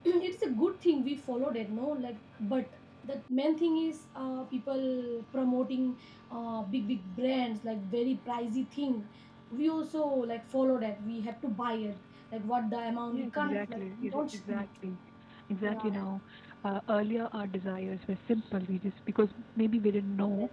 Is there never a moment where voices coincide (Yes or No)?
No